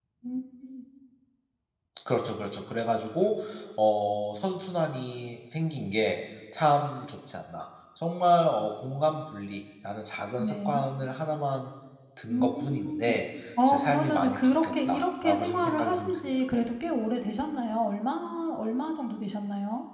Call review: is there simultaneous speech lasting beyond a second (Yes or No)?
Yes